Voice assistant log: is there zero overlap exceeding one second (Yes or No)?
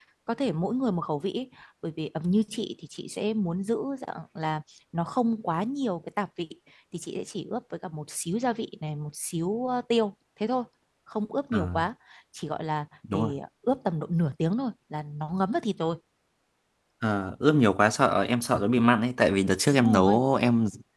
Yes